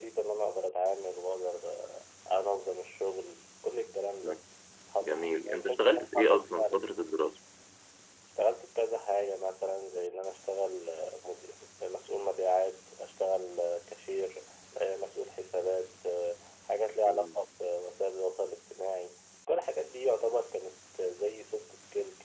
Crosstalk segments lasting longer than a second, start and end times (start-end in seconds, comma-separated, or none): 5.0-6.8